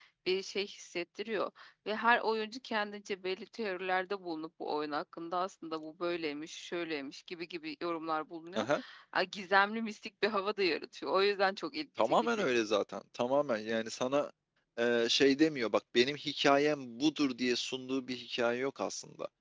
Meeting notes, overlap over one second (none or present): none